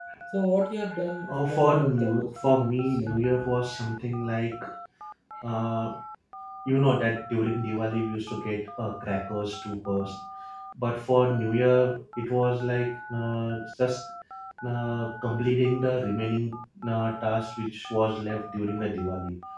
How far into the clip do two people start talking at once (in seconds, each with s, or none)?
1.3 s